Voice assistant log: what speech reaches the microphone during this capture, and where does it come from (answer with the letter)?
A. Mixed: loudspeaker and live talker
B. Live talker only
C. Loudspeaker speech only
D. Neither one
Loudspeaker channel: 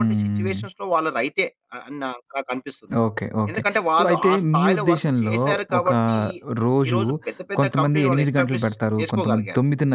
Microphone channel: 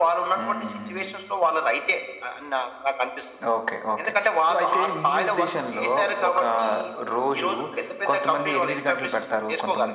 C